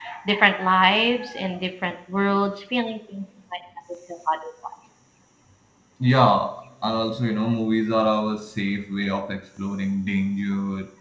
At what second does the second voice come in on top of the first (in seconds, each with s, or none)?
none